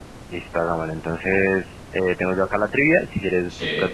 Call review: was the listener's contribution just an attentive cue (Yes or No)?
Yes